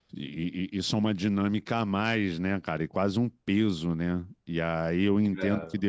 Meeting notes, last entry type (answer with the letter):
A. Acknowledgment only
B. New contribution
A